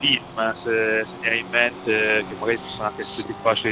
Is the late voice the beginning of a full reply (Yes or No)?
No